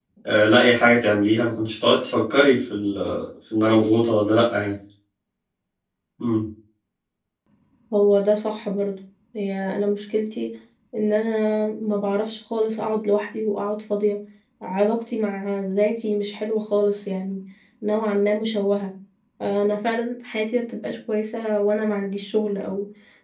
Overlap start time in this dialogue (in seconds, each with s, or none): none